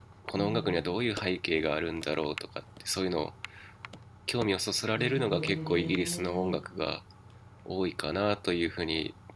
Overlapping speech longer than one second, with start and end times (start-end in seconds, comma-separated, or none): 5.0-6.6